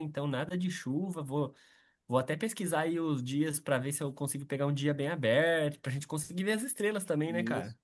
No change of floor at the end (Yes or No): No